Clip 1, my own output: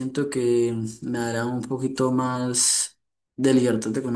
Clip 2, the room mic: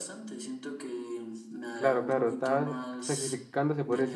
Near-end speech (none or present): present